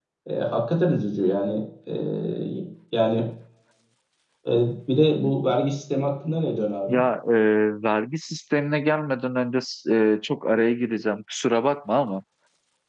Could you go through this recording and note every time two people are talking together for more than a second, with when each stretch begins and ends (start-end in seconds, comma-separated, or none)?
none